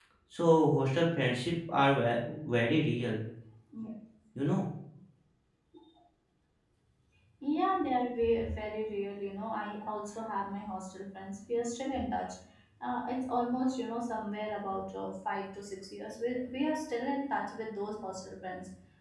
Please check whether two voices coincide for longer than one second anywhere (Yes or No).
No